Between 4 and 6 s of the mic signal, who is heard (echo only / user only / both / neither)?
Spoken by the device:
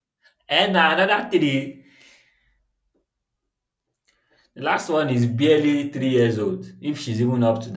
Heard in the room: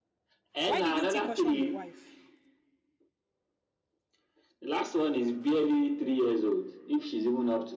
echo only